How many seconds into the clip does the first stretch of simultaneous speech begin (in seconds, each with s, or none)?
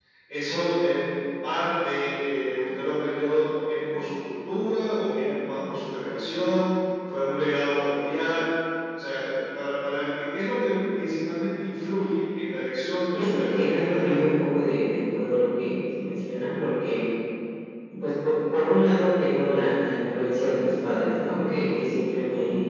13.1 s